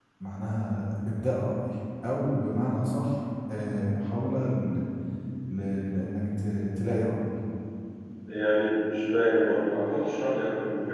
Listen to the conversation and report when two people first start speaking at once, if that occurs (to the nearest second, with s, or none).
none